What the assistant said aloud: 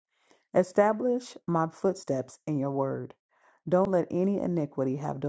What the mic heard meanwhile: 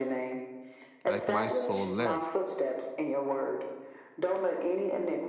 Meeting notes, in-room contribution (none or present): present